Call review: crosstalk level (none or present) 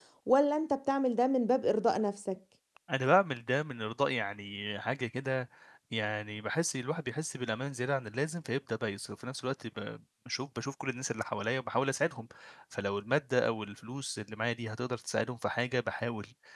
none